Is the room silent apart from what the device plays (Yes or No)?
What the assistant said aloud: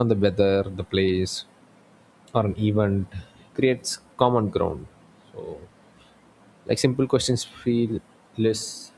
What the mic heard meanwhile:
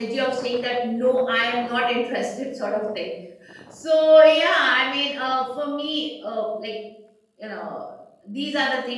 No